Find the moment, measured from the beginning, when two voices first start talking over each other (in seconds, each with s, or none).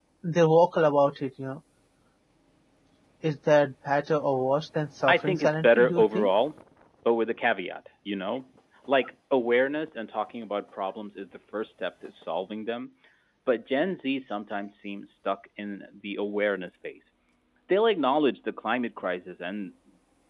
5.1 s